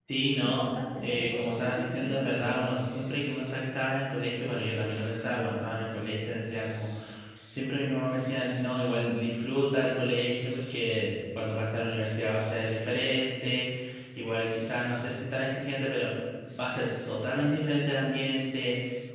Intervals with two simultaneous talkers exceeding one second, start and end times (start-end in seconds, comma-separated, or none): 1.0-2.4